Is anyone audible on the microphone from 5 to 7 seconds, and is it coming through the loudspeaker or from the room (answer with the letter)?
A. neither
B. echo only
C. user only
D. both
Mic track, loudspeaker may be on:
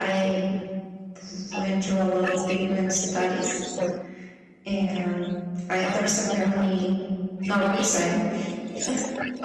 D